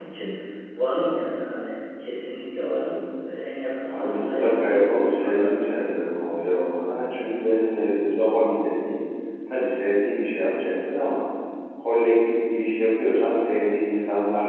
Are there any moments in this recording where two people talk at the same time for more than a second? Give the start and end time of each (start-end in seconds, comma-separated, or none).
3.8-5.5